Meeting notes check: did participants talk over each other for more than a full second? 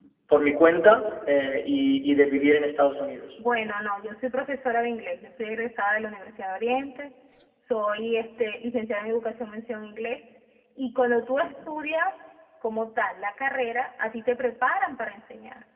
No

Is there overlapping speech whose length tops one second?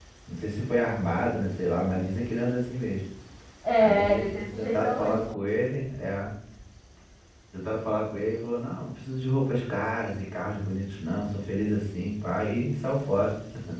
Yes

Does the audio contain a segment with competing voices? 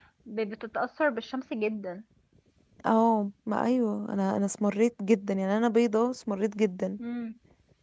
No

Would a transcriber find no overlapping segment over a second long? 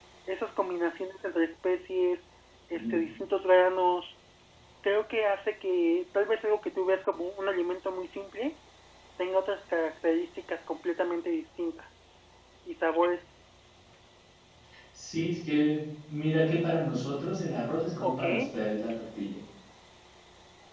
Yes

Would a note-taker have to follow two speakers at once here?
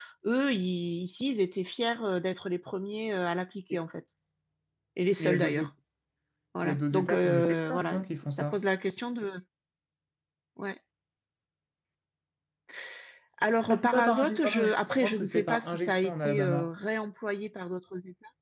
Yes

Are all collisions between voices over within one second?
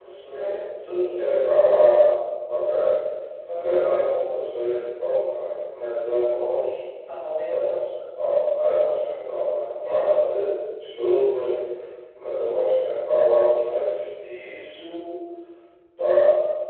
Yes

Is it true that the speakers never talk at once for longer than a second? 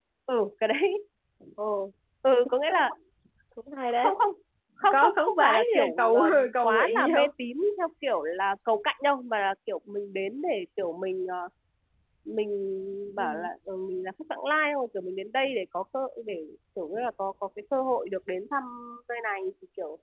No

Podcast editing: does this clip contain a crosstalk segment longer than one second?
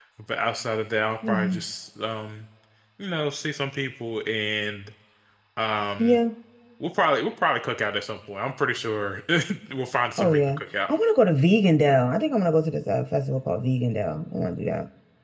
No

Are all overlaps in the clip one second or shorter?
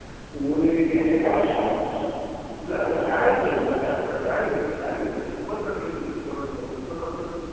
No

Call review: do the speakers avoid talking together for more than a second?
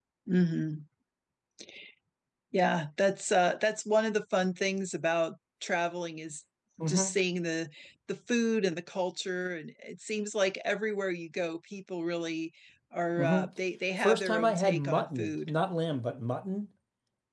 No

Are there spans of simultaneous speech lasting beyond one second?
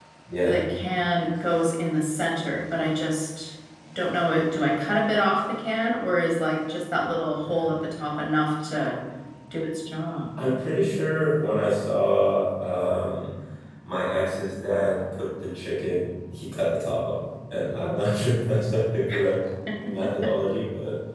No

